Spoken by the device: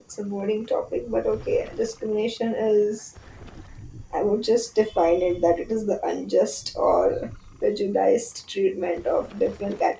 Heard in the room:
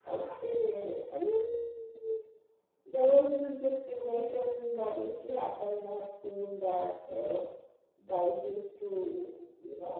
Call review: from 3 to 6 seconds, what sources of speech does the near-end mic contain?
user only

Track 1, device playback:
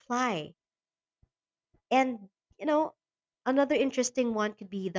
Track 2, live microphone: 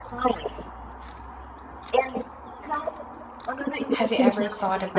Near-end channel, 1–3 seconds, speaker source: echo only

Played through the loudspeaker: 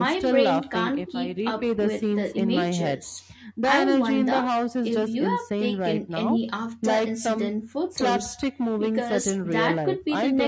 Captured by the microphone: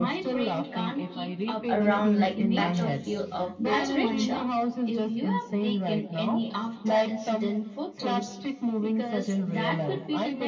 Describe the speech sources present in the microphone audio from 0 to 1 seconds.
echo only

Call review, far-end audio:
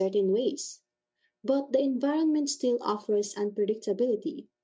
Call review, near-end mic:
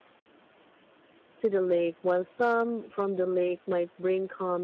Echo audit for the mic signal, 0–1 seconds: neither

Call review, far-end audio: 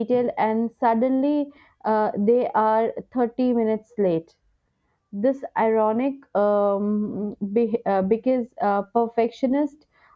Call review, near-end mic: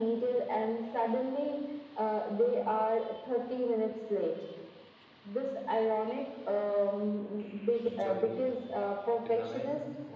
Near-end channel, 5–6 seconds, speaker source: echo only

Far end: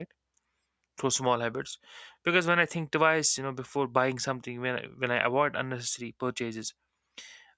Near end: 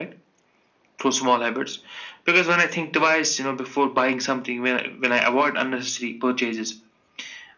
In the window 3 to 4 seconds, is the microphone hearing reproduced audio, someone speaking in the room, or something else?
echo only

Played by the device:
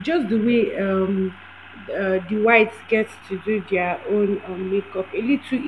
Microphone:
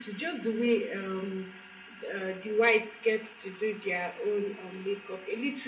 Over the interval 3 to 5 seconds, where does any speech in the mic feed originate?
echo only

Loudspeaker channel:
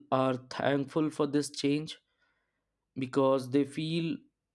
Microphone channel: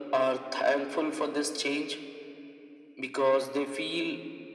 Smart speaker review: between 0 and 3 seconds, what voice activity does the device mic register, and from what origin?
echo only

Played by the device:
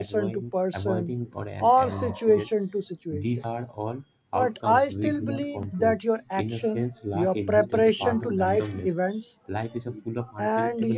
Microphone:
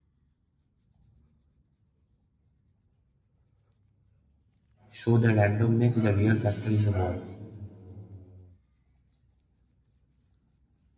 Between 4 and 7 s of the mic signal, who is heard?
user only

